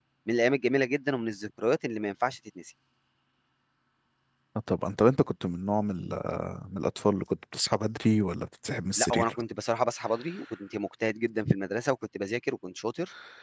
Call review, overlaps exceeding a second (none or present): none